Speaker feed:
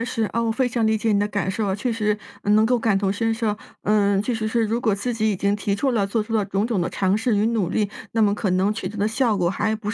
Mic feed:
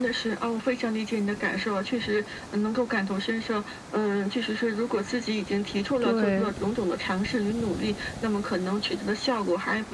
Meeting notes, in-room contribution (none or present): present